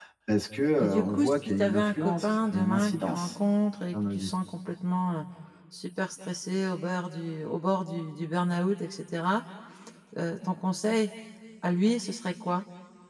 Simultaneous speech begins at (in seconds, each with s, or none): 0.8 s